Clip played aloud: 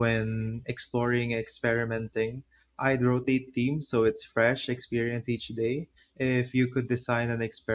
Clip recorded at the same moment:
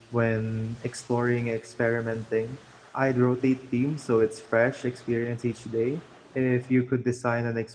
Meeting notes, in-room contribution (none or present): none